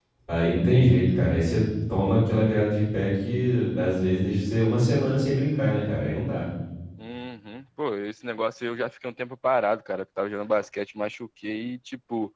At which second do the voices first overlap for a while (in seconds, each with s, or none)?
none